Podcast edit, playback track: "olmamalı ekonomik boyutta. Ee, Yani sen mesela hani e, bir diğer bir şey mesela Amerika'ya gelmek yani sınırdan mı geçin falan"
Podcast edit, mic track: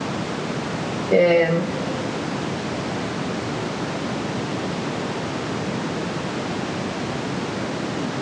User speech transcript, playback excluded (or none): Ee,